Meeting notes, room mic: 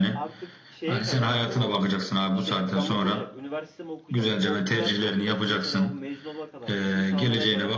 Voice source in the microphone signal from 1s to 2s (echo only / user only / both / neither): both